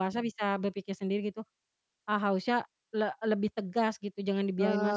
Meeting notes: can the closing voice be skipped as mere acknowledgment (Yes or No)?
No